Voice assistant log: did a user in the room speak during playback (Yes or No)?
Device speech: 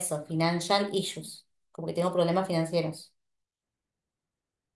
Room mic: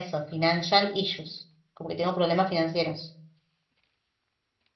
No